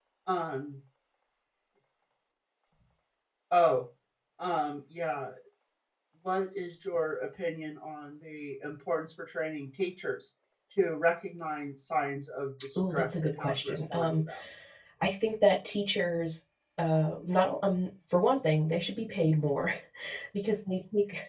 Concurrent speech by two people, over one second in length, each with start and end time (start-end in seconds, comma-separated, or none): 12.8-14.2